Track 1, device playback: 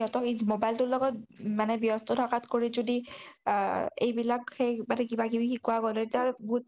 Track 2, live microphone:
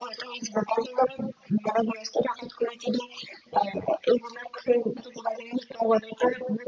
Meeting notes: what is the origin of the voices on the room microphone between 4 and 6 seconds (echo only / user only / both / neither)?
echo only